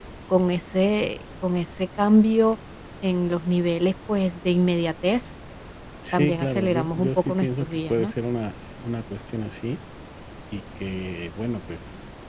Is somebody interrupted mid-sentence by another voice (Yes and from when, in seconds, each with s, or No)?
Yes, from 6.1 s